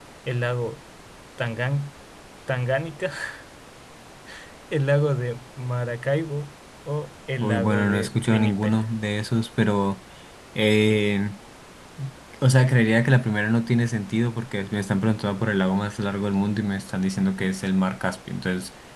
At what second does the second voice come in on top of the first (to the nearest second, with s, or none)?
7 s